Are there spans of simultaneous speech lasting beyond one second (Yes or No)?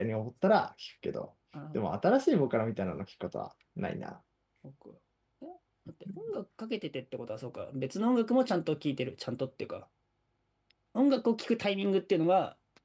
No